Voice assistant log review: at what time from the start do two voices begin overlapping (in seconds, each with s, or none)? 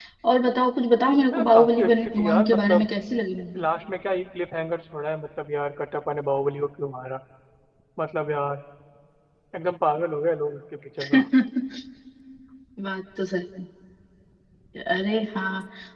1.3 s